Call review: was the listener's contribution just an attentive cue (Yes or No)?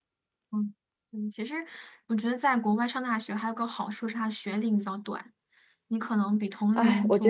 No